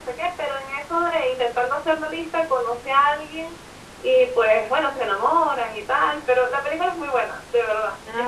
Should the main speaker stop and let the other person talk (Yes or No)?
Yes